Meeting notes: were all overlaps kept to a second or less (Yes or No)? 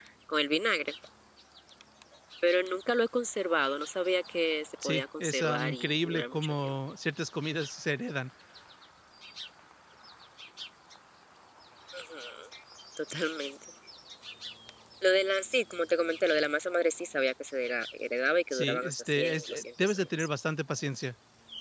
No